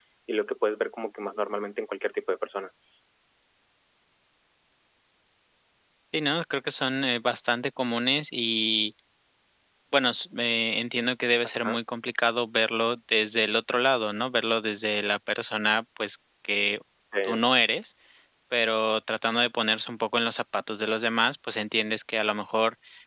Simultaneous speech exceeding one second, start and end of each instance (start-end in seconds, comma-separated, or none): none